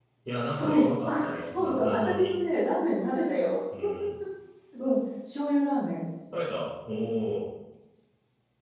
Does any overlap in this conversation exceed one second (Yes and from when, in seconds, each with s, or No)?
Yes, from 0.5 s